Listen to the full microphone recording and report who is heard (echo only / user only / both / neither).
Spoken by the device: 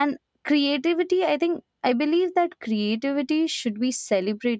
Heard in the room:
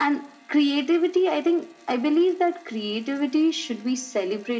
echo only